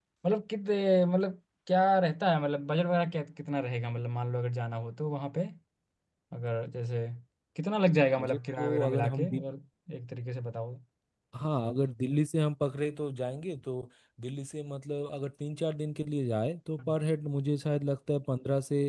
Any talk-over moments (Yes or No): Yes